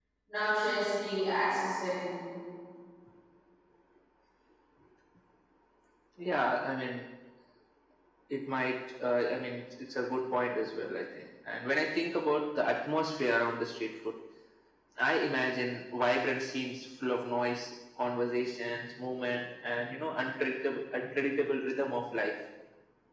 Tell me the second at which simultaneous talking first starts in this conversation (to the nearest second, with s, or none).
none